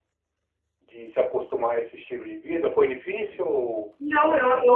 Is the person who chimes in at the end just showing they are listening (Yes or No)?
No